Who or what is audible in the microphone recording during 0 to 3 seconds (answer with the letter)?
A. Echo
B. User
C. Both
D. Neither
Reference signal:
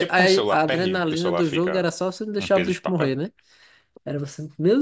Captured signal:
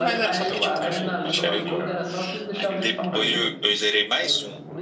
C